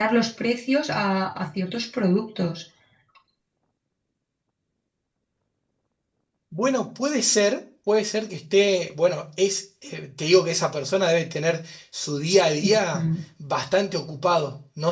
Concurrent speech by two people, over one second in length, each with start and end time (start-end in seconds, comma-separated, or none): none